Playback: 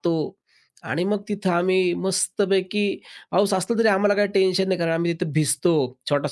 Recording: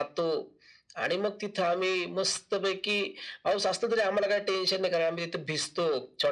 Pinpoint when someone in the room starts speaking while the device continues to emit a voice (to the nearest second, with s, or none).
none